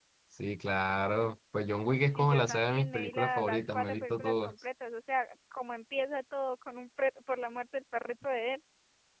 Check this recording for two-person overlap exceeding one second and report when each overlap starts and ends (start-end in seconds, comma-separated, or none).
2.1-4.5